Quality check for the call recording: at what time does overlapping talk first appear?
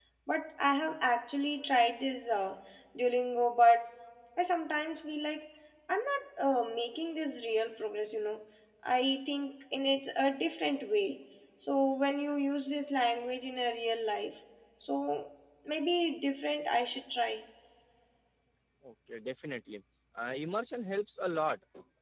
none

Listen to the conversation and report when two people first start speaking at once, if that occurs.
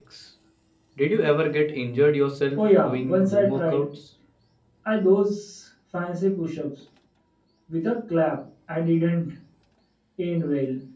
2.6 s

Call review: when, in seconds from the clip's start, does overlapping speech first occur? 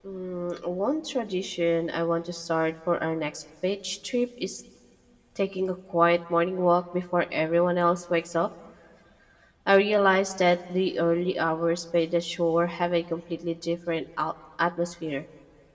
none

